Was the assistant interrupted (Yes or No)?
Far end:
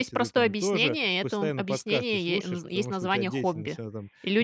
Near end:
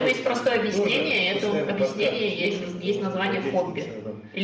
No